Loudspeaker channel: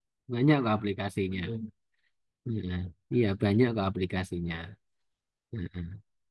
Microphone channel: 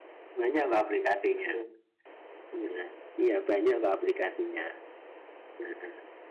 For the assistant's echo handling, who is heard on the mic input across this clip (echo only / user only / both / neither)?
echo only